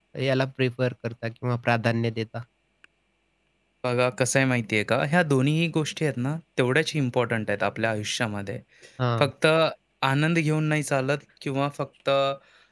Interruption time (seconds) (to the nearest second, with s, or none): none